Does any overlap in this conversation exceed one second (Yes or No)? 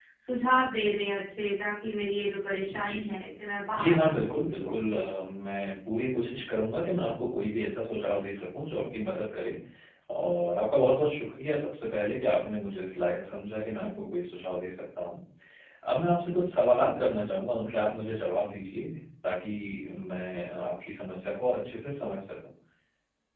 Yes